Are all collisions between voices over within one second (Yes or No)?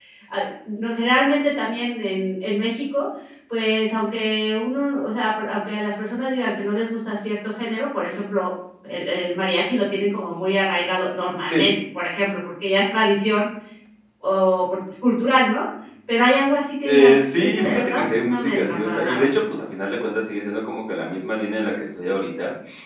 No